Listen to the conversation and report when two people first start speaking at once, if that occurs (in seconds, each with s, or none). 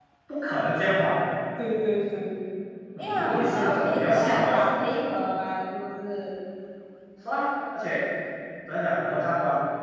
3.0 s